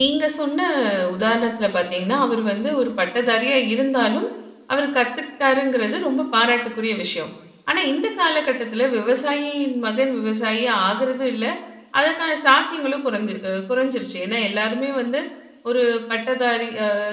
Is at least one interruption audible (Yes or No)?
No